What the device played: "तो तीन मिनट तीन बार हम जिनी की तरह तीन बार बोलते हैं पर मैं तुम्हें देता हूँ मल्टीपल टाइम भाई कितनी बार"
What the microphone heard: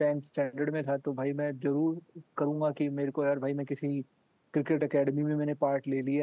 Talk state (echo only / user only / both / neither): user only